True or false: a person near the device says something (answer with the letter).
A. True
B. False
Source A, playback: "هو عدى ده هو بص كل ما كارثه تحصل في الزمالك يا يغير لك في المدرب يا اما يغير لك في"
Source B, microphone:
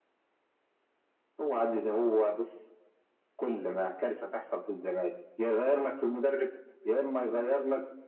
B